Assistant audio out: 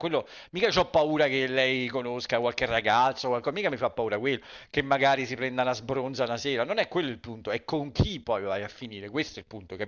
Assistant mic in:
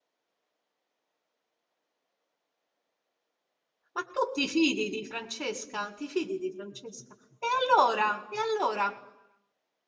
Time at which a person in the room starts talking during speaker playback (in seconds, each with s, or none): 3.9 s